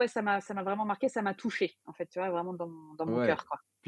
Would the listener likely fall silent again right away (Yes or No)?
No